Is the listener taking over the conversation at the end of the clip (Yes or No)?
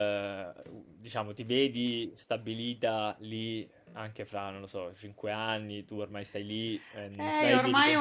Yes